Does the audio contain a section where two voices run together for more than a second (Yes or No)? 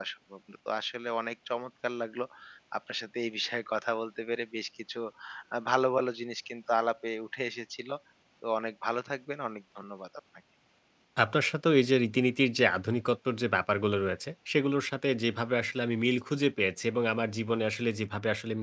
No